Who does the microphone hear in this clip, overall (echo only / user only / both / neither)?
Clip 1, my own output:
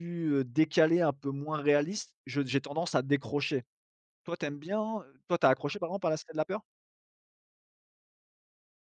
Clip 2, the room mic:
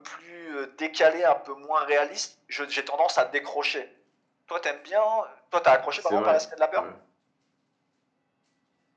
both